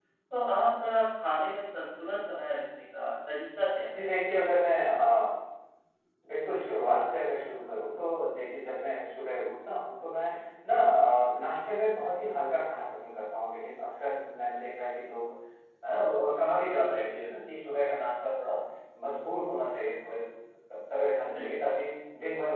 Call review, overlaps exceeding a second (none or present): none